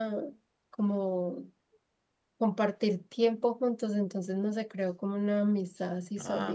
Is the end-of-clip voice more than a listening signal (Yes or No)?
Yes